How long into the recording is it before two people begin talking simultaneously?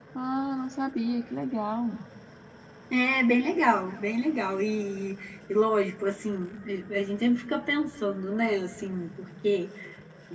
none

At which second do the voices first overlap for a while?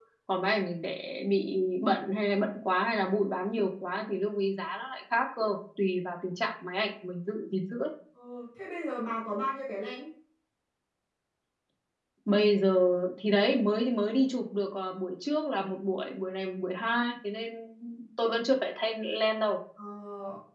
none

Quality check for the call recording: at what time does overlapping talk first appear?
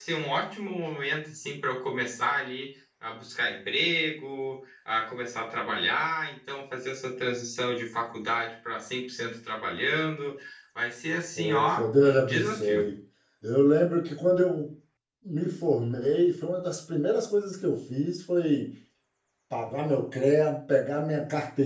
11.4 s

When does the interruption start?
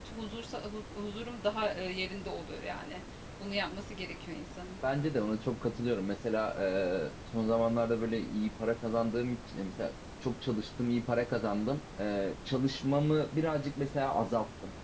none

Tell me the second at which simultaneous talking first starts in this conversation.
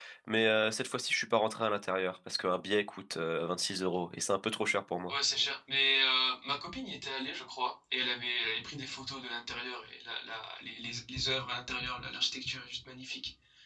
none

